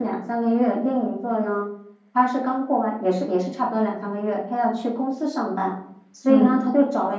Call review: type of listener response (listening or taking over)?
listening